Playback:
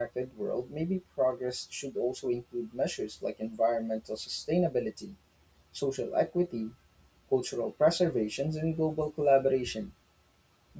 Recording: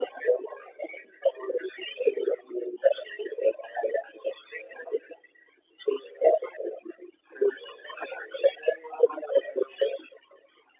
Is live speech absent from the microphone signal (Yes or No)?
Yes